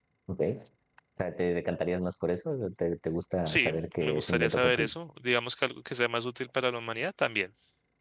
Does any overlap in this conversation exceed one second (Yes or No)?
Yes